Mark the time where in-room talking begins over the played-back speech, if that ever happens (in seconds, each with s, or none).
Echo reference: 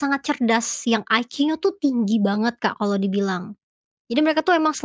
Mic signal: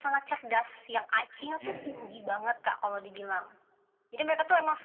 1.4 s